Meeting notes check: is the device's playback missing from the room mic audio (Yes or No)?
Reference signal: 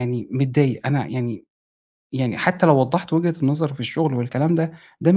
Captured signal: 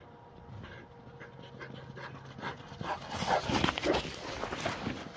Yes